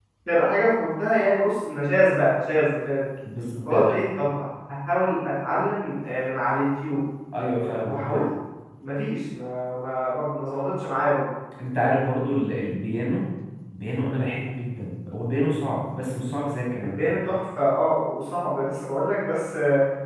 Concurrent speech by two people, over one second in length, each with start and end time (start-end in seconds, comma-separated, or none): none